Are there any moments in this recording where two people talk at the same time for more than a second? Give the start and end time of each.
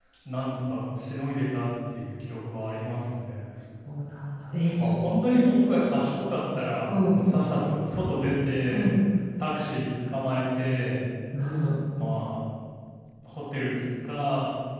none

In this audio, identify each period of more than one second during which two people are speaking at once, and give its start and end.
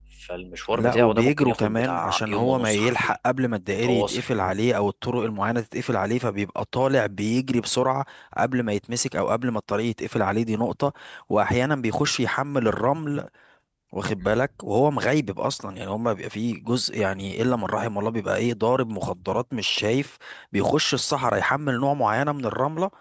0.7-3.1

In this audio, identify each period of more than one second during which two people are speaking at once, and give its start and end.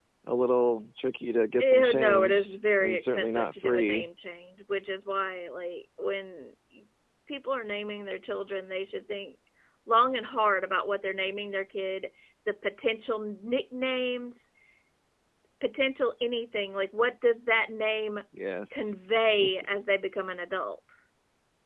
1.6-4.1

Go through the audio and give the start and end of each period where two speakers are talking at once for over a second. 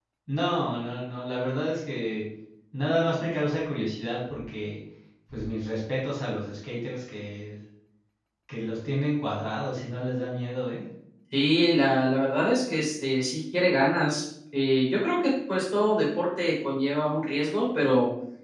none

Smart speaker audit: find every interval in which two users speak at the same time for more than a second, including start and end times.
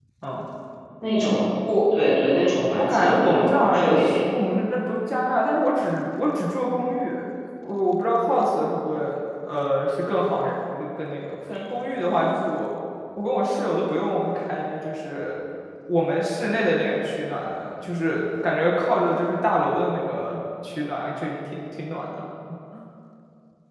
2.8-4.1

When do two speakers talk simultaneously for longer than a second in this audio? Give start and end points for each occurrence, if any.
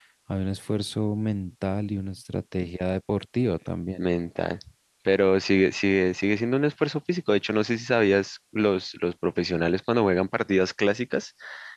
none

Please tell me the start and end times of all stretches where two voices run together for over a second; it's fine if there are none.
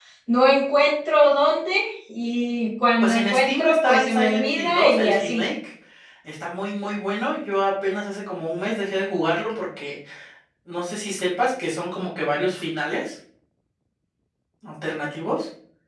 3.0-5.4

